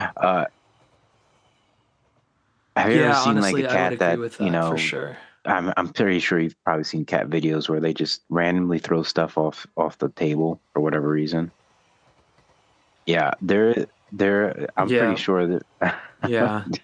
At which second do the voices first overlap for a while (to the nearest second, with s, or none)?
3 s